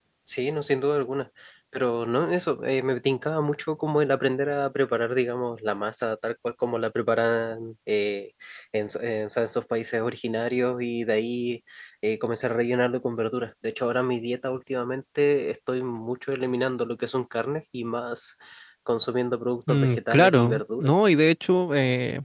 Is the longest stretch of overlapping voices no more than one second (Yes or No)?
No